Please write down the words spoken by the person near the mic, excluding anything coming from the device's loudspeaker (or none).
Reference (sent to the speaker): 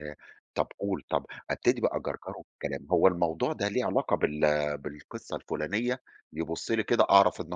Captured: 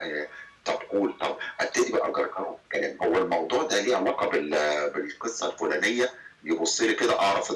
none